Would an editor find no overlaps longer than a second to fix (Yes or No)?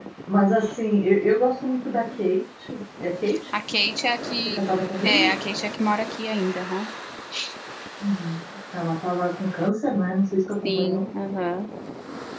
Yes